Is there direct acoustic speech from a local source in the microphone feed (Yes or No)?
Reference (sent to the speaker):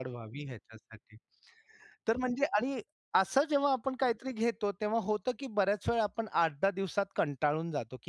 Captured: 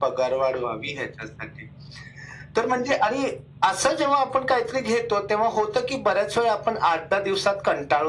No